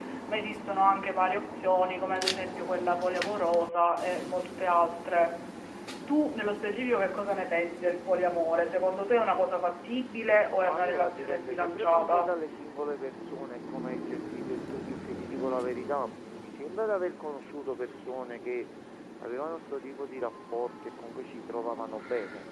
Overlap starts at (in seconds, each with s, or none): 10.5 s